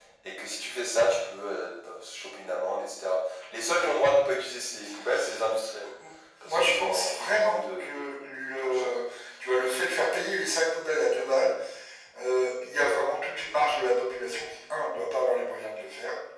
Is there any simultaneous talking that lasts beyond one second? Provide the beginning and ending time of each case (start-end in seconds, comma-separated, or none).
6.4-7.9